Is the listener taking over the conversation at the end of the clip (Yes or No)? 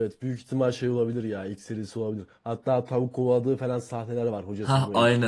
Yes